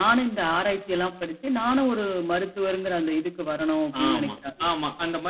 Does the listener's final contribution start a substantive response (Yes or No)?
Yes